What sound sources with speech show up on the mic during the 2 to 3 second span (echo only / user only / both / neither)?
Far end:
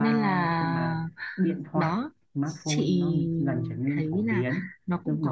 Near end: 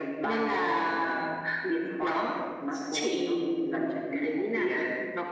echo only